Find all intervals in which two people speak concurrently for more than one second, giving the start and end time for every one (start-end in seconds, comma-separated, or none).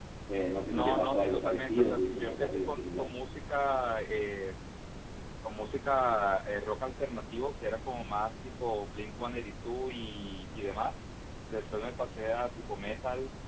0.7-3.1